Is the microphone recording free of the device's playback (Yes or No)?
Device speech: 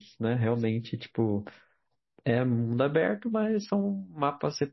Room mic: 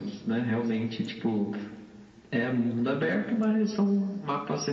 No